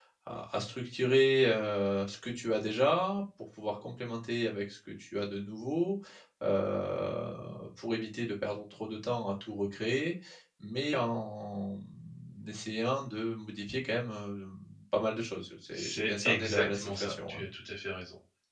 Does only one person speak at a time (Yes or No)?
No